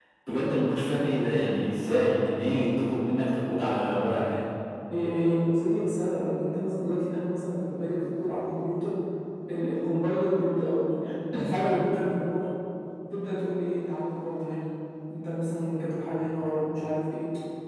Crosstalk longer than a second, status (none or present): none